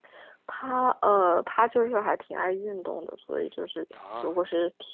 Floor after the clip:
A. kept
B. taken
A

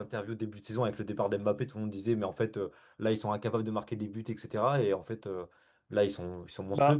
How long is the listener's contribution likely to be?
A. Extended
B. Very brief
B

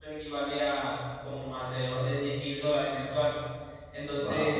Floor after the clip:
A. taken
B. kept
B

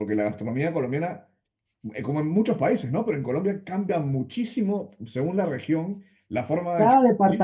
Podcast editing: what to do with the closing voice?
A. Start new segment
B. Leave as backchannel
A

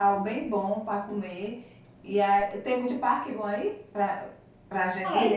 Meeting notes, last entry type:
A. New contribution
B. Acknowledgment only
A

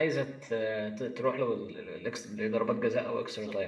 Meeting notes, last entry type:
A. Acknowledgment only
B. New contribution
B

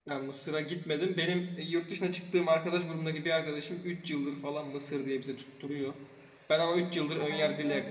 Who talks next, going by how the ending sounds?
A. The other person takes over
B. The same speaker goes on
B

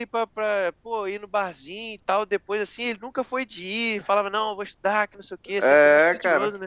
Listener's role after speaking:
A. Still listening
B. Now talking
B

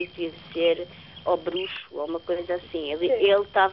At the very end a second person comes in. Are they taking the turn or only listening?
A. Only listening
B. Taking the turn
A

